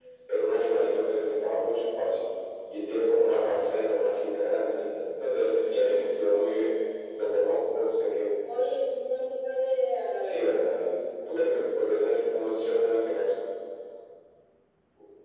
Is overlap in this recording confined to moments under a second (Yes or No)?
Yes